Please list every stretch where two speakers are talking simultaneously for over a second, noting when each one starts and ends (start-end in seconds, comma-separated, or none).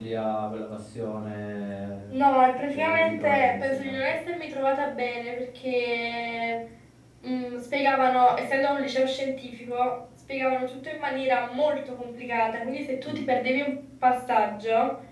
2.7-4.0